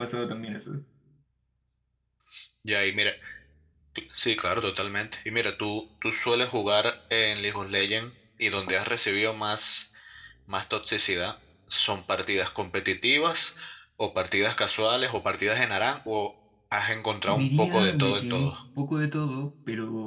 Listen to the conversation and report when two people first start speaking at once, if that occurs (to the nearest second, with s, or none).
17 s